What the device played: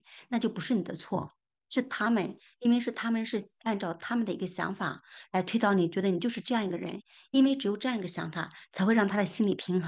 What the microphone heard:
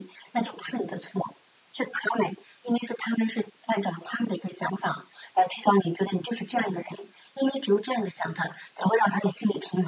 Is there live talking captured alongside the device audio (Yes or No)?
No